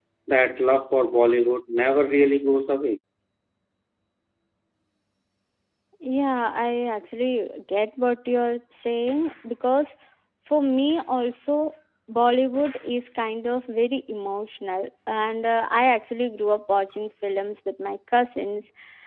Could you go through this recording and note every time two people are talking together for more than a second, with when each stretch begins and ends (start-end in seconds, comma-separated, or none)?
none